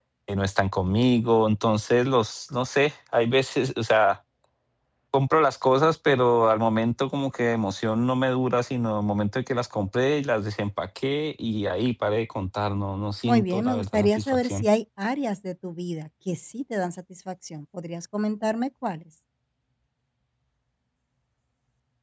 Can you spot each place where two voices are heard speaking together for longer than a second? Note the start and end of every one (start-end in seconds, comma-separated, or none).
13.2-14.7